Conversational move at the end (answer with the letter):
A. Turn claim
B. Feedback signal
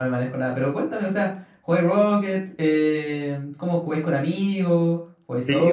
A